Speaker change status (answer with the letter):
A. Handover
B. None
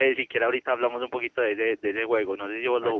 A